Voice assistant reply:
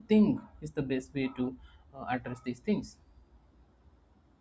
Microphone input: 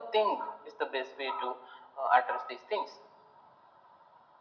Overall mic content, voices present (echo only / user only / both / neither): echo only